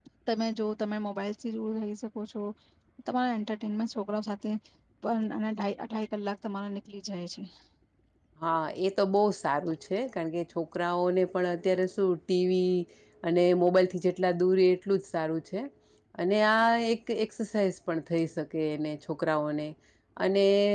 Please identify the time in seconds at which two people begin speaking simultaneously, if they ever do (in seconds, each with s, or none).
none